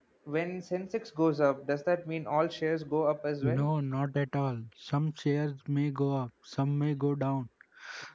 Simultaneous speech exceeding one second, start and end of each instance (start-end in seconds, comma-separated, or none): none